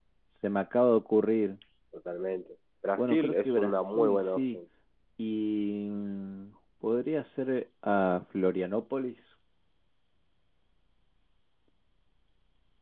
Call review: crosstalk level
present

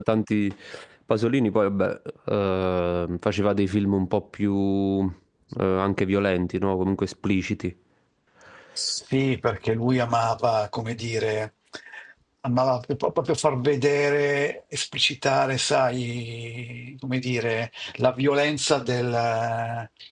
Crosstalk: none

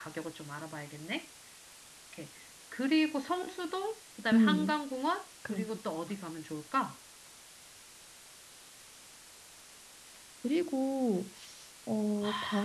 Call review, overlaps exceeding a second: none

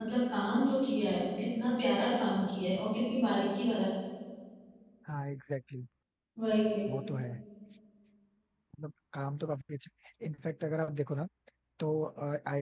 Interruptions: none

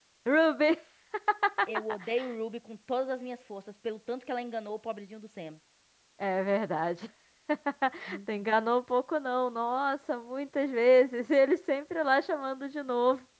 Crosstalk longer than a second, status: none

